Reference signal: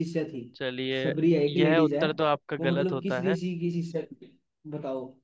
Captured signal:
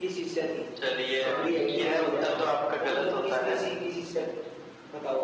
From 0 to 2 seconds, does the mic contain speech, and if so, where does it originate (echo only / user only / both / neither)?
both